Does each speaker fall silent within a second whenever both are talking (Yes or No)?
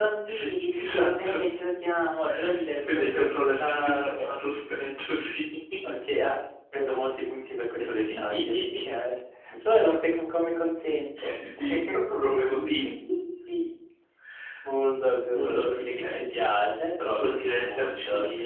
No